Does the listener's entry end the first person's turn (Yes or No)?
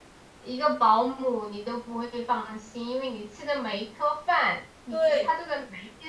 No